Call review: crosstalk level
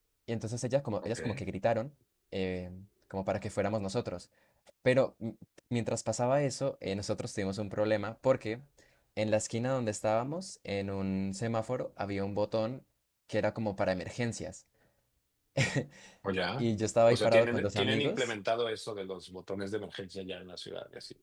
present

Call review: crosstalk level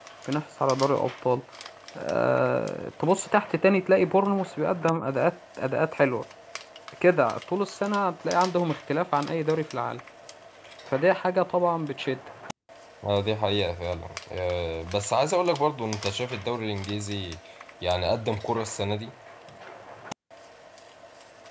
none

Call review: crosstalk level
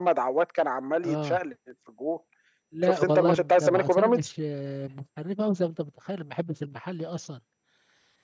present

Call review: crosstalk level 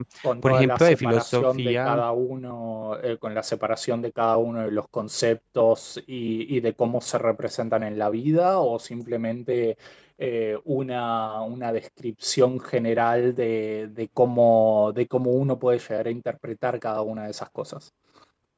present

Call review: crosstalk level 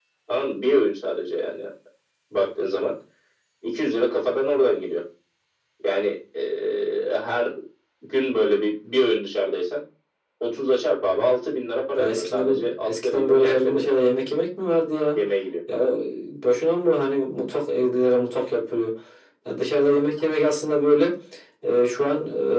present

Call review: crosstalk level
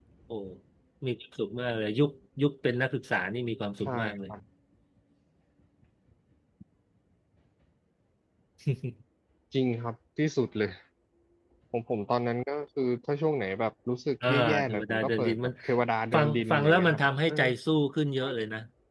present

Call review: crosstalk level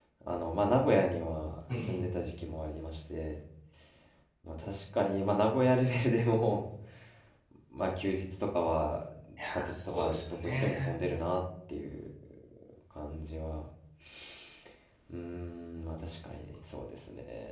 present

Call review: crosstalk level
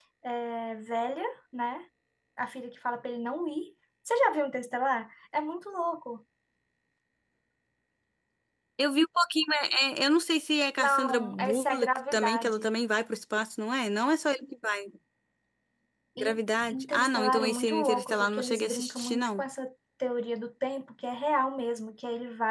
present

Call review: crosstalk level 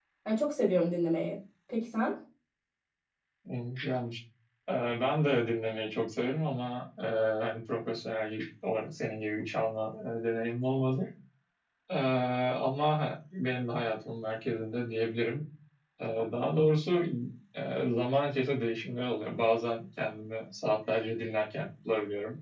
none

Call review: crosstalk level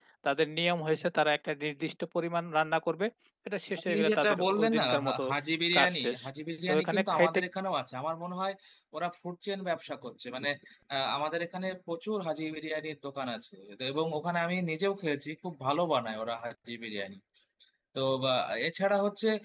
present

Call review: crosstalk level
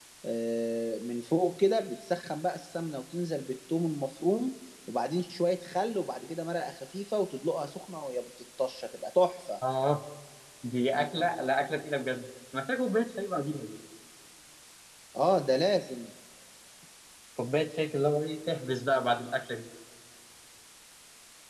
none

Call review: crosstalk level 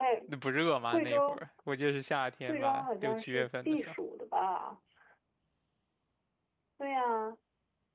present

